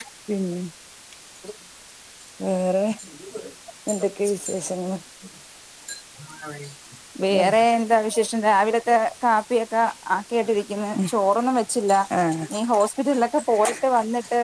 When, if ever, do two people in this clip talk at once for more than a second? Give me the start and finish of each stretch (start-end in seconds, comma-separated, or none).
none